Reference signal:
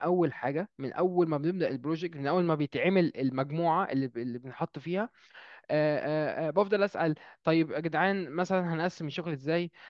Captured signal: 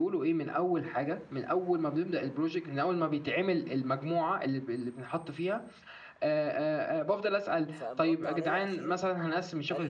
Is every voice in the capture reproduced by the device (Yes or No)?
No